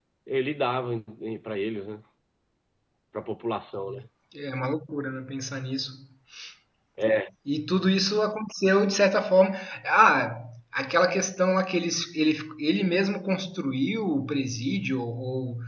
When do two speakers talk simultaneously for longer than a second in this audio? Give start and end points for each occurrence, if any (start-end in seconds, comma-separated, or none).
none